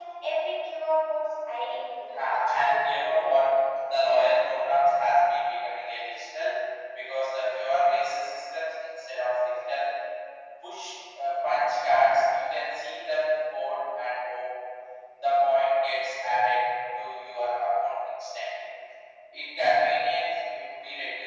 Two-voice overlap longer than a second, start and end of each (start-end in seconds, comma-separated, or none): 2.1-3.5